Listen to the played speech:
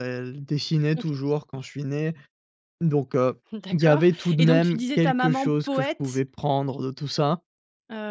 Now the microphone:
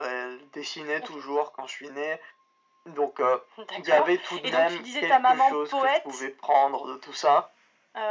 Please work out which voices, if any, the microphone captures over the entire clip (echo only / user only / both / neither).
echo only